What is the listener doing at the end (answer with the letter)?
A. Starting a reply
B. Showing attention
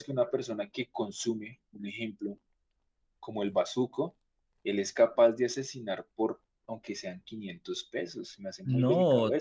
A